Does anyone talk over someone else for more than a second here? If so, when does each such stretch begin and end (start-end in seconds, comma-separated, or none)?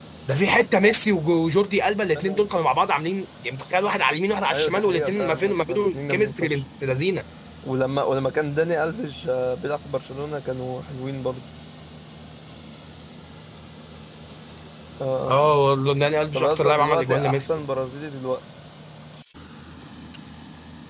4.5-6.6, 16.3-17.6